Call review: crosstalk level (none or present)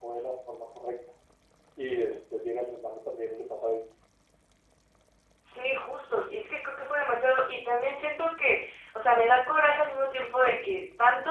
none